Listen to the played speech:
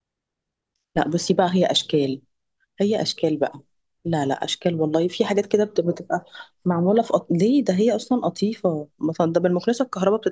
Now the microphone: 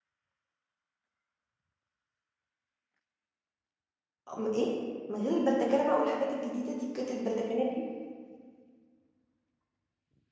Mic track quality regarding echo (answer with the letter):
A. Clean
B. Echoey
A